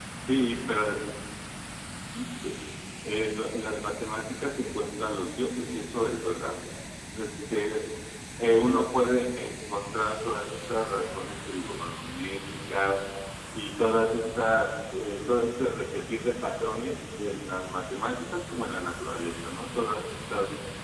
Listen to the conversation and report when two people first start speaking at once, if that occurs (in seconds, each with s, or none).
none